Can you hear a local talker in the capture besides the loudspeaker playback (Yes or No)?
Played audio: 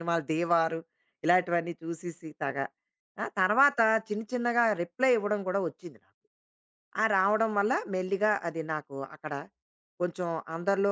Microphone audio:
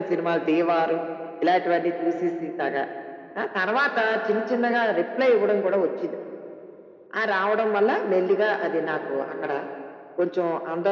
No